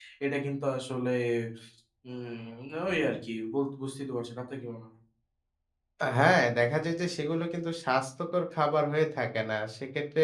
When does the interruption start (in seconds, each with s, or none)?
none